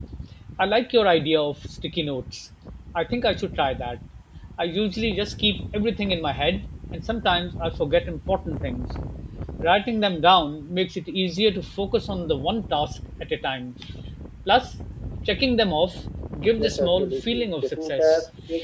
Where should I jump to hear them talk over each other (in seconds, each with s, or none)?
16.6 s